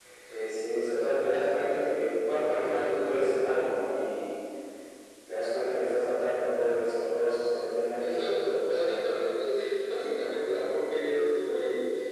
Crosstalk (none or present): present